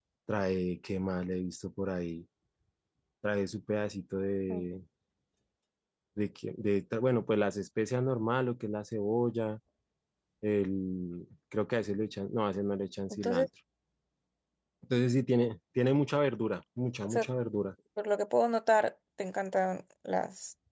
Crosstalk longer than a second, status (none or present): none